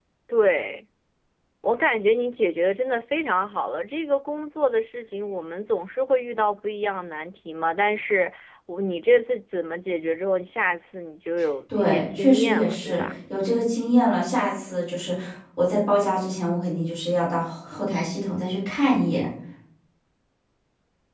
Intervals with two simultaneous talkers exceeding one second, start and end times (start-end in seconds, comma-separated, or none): 11.8-13.0